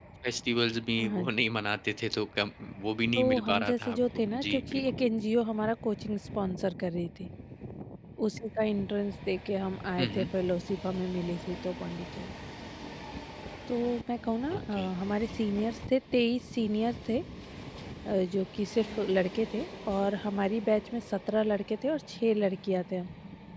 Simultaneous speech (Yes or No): Yes